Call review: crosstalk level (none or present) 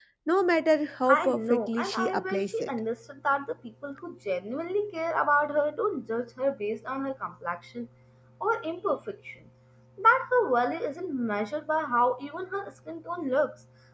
present